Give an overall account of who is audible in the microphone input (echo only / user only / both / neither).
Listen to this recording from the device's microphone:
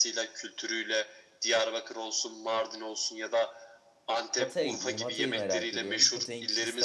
both